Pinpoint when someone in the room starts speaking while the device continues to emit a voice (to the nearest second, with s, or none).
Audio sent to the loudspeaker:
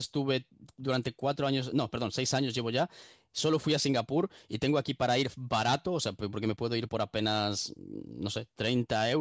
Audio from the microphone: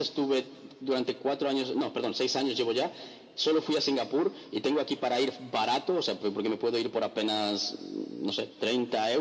none